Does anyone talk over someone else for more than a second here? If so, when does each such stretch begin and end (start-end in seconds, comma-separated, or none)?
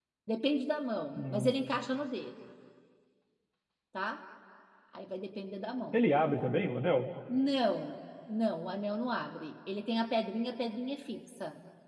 none